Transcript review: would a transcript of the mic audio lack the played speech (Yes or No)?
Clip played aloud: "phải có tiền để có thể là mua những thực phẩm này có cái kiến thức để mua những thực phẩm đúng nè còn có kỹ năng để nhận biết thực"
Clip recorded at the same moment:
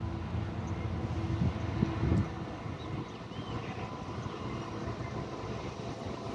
Yes